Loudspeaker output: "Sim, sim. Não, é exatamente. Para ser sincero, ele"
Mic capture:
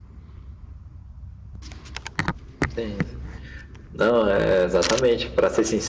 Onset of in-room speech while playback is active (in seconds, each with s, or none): none